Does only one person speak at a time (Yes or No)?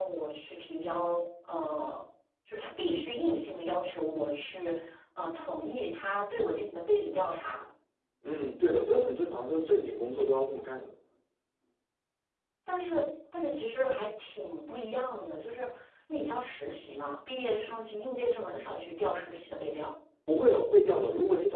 Yes